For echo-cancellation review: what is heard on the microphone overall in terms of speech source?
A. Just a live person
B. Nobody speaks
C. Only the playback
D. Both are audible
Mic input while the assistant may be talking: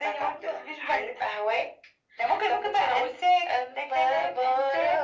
C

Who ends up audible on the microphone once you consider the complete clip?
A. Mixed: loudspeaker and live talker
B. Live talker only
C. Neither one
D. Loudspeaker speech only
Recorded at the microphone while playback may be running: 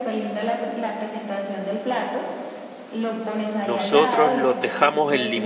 A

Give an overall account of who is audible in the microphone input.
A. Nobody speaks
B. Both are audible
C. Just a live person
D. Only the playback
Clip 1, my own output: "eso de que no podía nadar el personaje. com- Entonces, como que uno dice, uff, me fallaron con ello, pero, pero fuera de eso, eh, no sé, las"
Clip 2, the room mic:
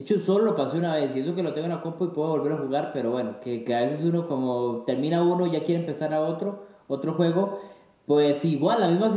C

